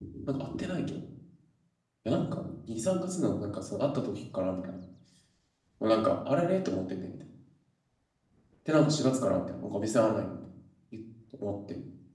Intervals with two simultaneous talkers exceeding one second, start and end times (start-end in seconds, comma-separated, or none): none